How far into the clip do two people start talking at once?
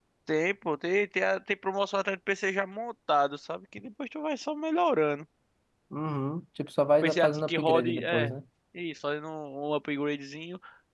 7.0 s

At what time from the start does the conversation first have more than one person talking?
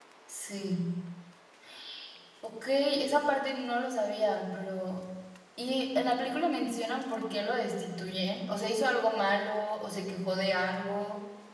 none

